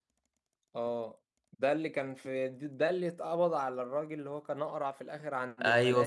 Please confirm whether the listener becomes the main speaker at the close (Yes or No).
Yes